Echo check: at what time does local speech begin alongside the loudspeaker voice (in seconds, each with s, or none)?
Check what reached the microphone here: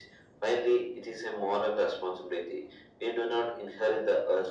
none